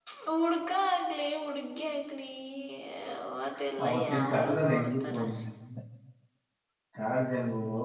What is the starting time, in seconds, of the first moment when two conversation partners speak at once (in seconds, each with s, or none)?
3.8 s